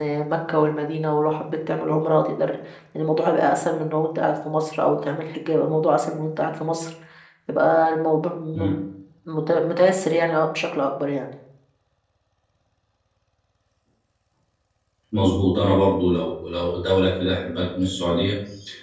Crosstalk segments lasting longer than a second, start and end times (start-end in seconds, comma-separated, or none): none